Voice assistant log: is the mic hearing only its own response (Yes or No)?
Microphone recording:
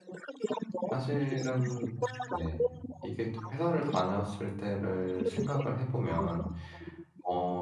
No